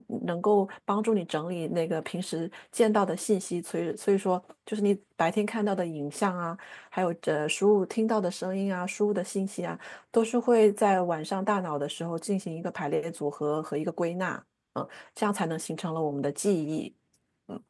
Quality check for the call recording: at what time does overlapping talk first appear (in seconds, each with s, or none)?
none